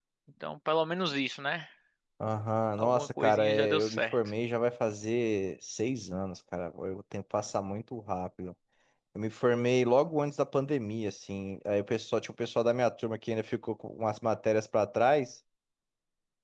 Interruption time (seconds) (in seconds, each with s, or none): 2.8 s